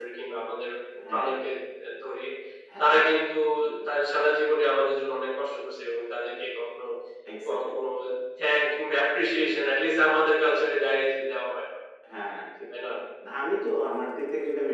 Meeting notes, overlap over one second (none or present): none